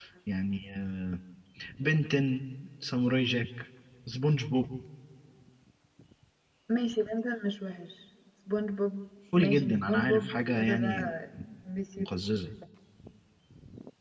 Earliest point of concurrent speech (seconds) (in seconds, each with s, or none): 9.3 s